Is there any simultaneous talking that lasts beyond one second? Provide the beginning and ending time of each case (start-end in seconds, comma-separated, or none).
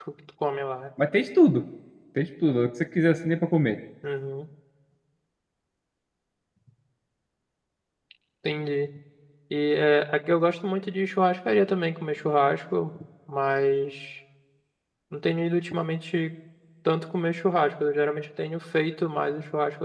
none